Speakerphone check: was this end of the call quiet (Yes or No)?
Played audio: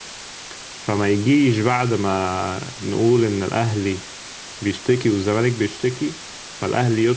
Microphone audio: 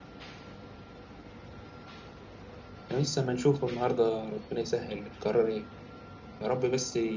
No